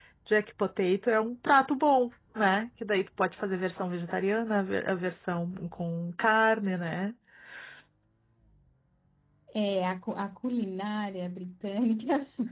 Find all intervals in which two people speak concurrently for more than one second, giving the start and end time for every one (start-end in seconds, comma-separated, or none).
none